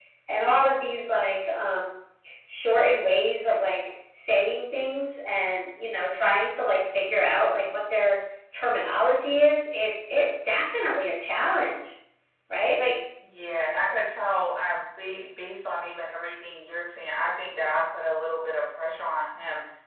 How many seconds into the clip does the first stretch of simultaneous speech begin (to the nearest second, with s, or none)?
none